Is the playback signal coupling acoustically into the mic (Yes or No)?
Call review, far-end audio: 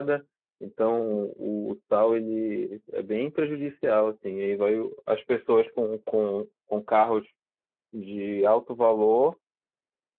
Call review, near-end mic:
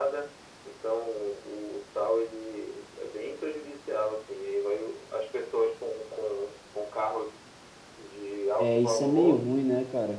Yes